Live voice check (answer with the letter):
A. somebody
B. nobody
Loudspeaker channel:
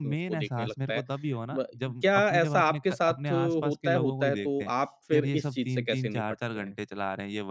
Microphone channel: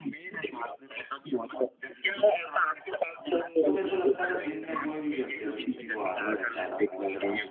A